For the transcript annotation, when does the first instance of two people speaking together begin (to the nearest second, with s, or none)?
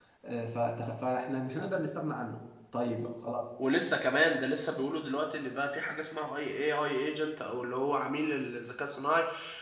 none